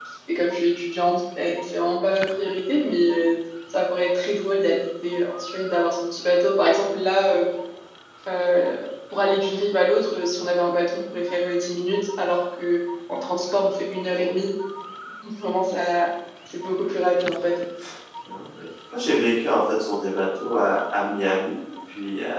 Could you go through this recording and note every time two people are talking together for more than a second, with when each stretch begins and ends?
none

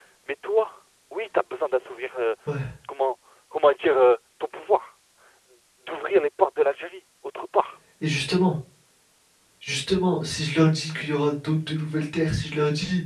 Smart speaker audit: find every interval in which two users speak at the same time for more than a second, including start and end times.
none

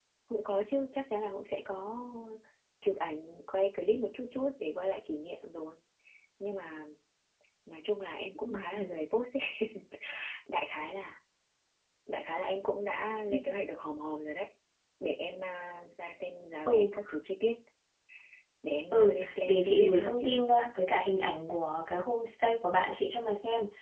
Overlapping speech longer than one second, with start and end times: 18.9-20.4

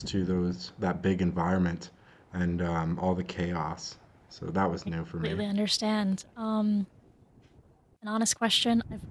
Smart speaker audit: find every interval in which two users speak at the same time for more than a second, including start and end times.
none

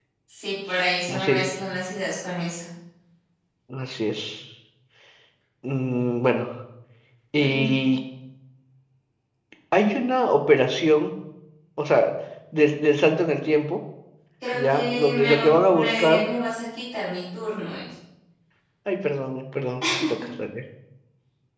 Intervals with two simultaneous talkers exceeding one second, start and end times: 14.5-16.2

